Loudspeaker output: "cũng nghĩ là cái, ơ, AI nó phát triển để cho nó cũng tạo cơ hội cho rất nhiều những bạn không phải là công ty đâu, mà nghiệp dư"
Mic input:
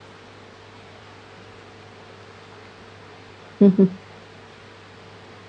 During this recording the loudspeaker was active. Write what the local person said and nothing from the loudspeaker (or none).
Ừm, ừm.